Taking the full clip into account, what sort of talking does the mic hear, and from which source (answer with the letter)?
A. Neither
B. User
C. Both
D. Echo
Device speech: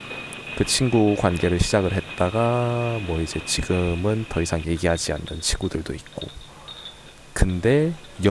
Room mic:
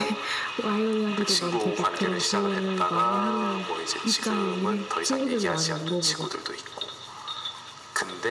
C